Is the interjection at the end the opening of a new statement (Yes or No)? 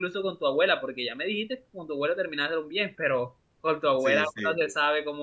No